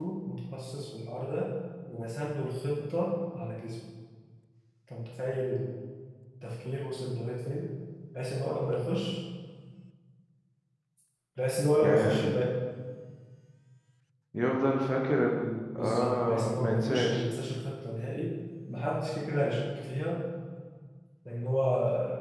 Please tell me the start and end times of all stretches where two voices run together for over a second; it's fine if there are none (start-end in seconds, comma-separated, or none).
15.8-17.2